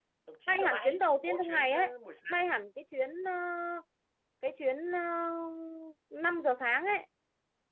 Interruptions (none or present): present